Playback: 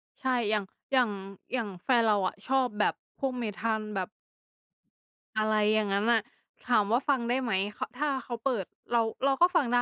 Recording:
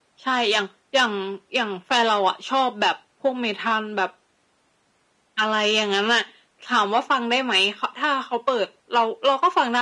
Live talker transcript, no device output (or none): none